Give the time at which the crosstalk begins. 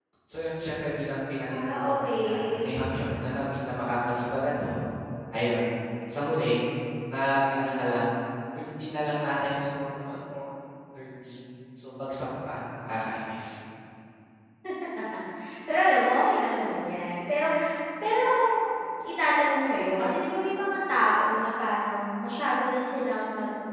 1.5 s

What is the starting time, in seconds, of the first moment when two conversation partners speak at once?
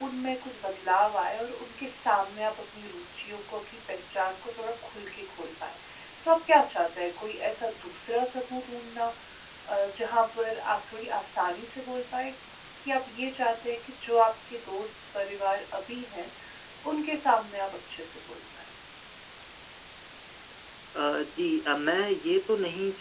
none

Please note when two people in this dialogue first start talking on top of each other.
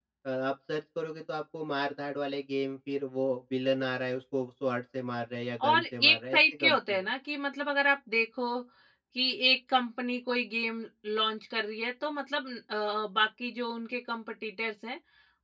5.6 s

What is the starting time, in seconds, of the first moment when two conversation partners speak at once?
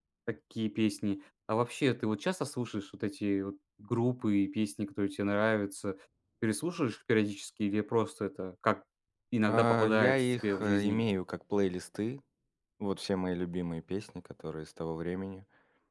9.5 s

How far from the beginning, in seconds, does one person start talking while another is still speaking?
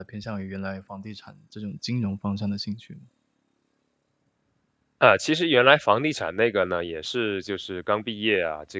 none

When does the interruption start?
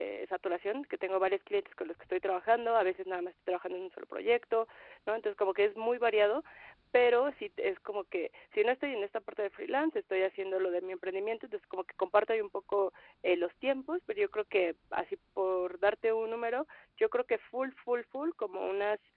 none

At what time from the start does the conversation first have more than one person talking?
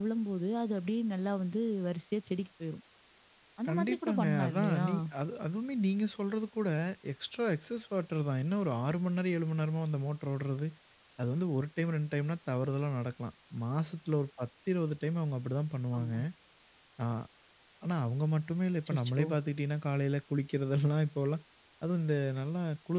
3.7 s

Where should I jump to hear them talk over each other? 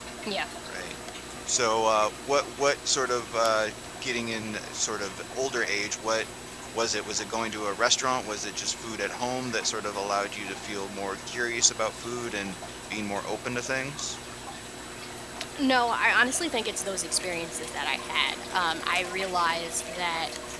none

